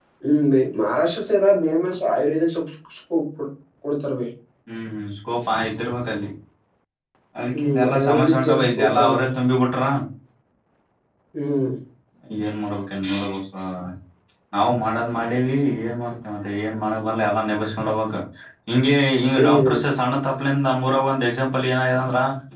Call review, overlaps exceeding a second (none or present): present